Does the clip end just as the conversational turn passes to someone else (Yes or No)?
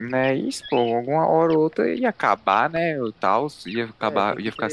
Yes